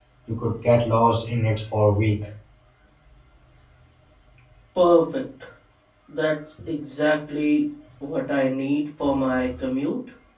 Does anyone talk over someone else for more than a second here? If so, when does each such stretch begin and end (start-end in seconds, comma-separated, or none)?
none